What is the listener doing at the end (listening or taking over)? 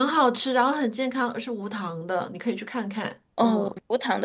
taking over